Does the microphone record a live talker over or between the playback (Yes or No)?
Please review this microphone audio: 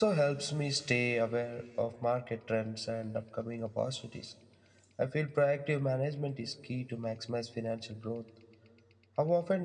Yes